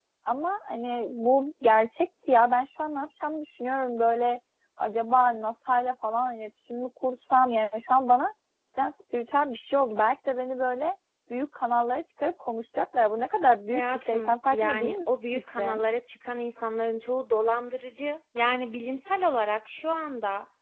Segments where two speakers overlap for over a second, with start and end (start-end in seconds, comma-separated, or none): 13.7-14.9